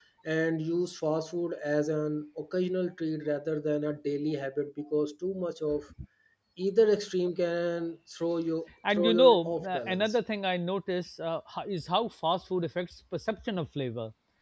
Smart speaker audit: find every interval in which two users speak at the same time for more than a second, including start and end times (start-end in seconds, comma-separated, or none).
8.9-10.2